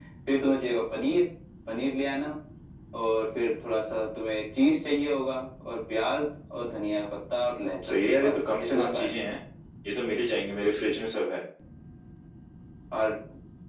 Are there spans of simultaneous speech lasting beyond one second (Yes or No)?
Yes